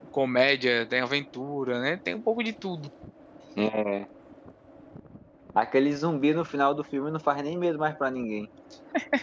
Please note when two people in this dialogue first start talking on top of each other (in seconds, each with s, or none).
none